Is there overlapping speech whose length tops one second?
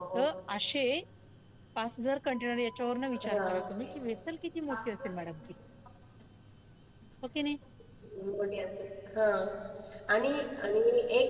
No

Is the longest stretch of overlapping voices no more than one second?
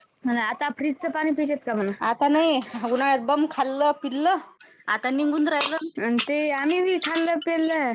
Yes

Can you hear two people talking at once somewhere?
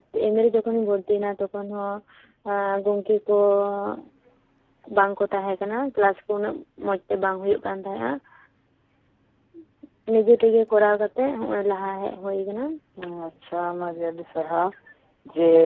No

